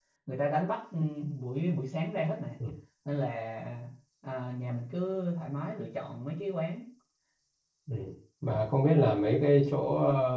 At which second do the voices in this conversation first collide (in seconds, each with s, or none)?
none